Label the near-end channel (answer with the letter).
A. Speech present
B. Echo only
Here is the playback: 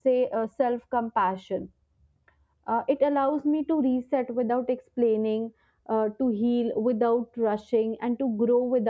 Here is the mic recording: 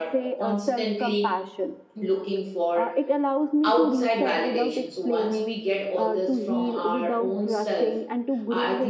A